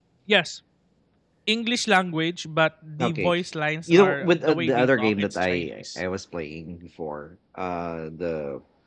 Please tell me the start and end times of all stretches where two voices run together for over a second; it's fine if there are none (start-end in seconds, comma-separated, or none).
3.9-6.0